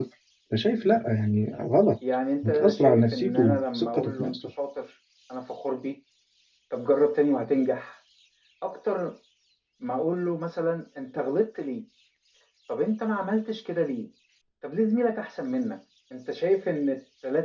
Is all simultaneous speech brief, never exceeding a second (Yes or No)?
No